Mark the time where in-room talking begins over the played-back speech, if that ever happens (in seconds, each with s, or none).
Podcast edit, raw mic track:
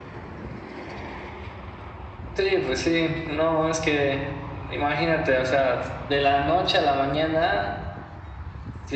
none